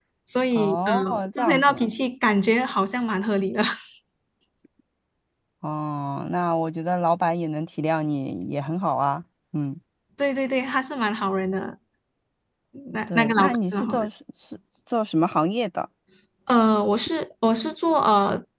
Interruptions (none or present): present